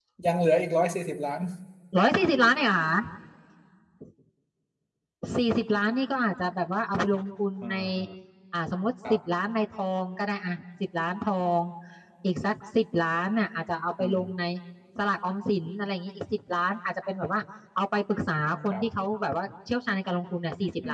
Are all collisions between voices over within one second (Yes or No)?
Yes